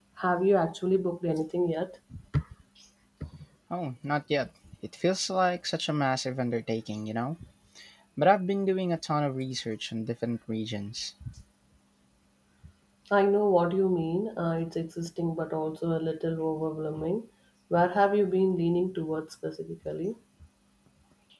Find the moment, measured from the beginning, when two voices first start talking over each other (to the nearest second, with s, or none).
none